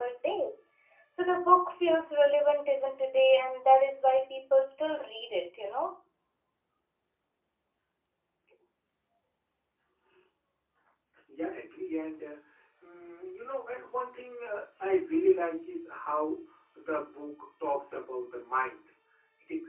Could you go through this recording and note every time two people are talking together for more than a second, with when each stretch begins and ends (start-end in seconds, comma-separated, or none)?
none